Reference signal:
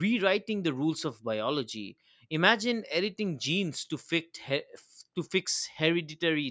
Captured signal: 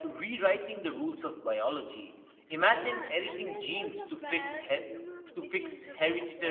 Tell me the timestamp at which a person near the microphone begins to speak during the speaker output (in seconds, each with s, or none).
2.5 s